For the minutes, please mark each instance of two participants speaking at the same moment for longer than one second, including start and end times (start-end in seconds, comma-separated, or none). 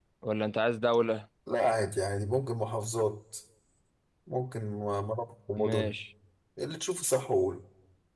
none